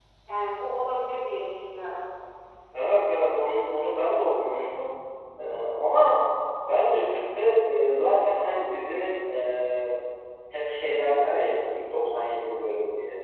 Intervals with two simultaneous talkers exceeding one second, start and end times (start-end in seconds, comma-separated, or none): none